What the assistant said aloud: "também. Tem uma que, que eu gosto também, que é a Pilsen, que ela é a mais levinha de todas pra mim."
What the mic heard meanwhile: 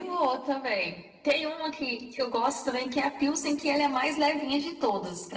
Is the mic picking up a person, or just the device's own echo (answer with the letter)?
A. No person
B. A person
A